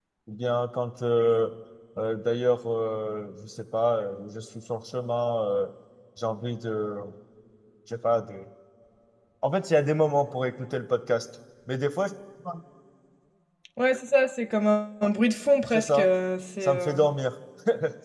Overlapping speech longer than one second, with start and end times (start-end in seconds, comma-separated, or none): none